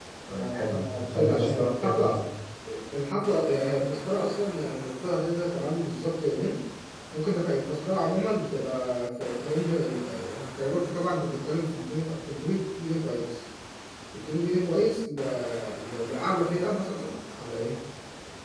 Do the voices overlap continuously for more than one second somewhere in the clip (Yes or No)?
Yes